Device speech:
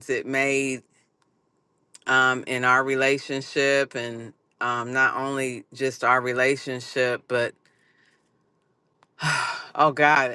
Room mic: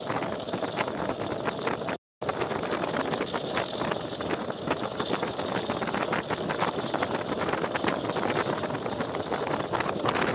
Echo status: none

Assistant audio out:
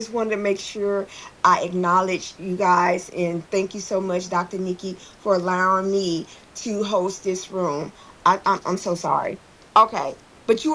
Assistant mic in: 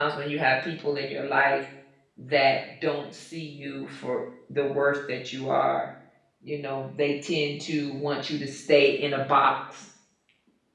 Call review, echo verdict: none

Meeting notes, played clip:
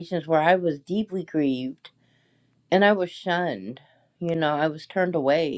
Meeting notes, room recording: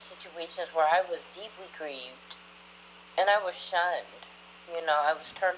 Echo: present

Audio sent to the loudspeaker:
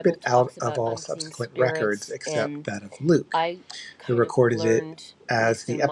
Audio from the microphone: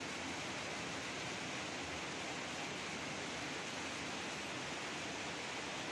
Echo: none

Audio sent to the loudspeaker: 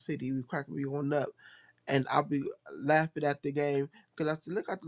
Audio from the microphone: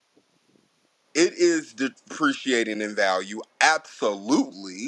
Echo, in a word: none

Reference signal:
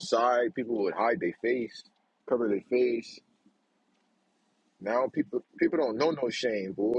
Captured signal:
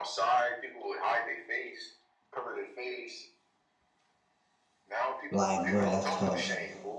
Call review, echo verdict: present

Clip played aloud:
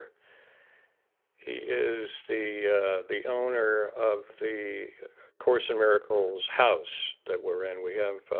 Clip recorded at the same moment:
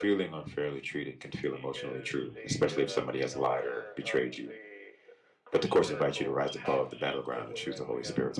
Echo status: present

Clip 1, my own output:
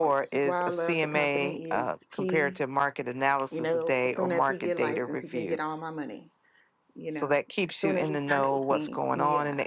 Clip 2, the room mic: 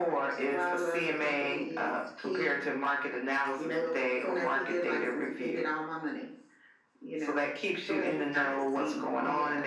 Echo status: present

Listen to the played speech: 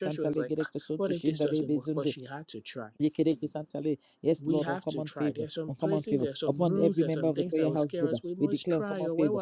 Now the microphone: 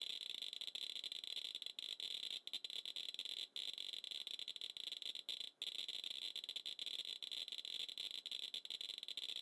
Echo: none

